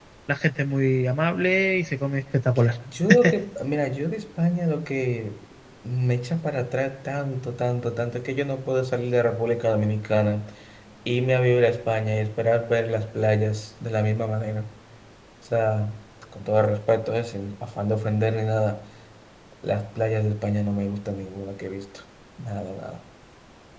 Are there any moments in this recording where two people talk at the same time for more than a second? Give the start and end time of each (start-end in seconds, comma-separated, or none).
none